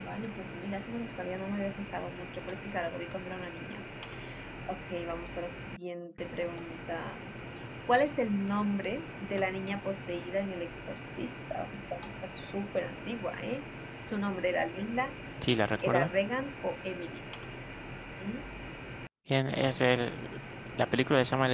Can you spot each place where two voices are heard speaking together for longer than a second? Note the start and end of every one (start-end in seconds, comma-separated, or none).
none